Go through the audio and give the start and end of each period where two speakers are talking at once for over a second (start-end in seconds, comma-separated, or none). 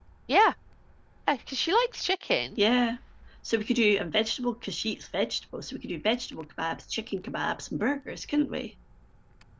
none